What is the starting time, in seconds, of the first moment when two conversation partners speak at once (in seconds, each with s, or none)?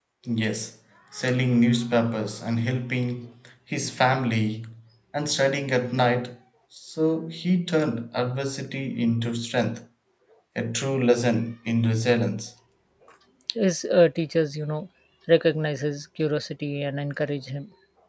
none